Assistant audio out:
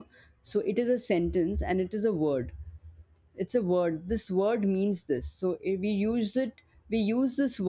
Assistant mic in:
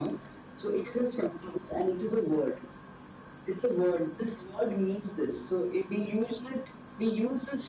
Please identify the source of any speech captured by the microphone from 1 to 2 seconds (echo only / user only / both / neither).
echo only